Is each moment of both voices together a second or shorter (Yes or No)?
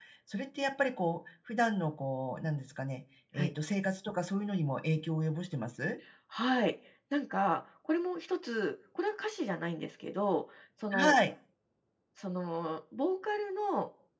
Yes